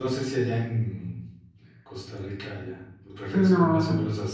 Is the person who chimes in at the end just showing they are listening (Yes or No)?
Yes